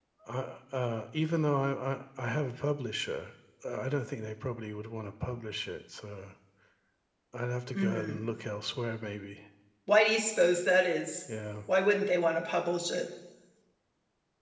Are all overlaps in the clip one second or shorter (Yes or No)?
Yes